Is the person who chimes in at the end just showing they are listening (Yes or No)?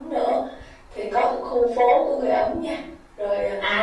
No